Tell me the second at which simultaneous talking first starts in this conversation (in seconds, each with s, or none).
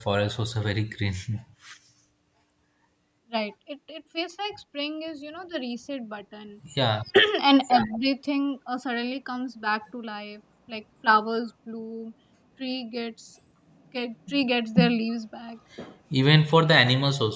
none